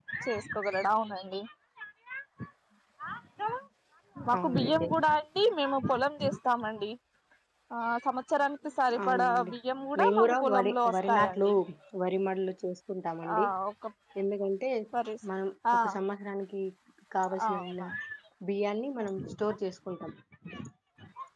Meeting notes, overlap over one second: present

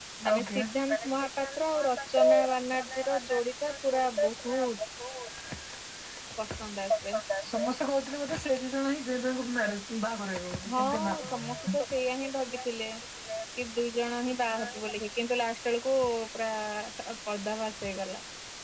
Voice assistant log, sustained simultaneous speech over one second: present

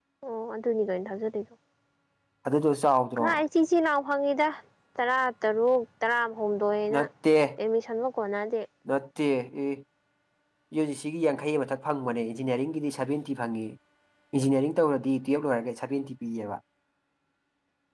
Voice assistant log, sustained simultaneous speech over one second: none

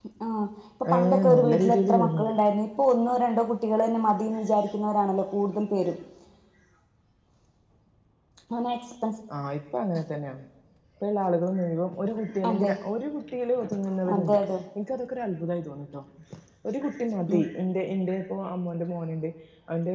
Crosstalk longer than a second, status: present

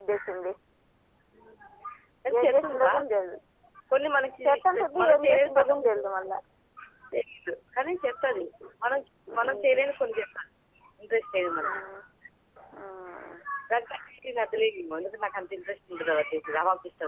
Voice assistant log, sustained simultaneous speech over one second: present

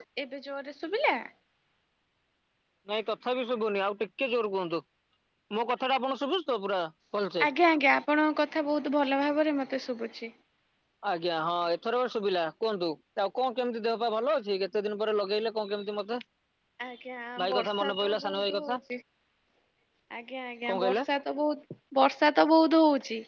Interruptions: present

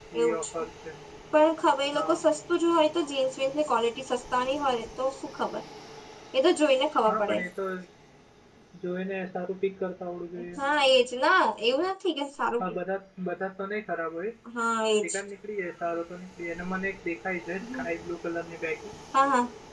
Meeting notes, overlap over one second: none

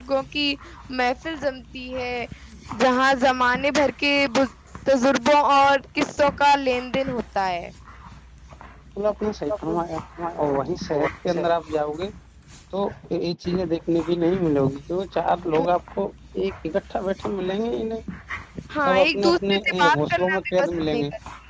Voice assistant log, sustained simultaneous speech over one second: present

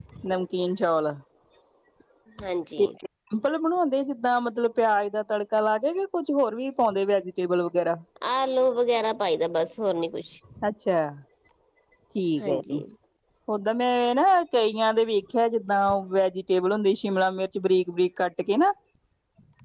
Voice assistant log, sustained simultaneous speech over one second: none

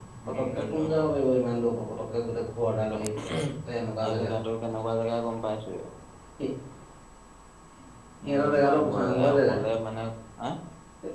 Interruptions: present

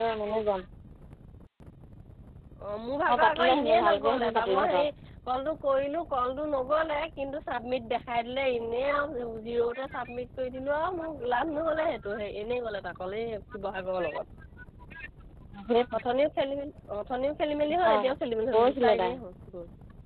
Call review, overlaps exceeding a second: present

